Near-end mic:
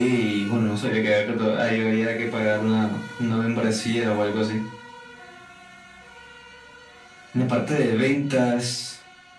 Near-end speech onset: none

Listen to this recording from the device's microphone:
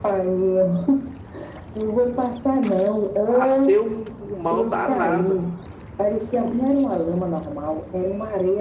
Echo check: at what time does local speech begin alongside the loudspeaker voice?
3 s

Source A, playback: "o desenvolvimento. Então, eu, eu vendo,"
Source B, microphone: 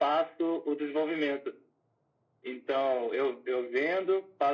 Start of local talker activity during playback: none

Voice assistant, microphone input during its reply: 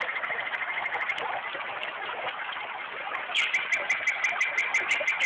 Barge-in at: none

